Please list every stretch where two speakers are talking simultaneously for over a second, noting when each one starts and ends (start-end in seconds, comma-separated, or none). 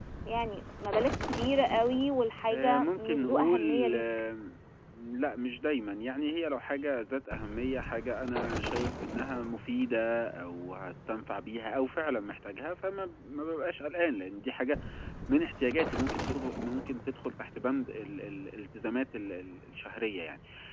2.5-4.0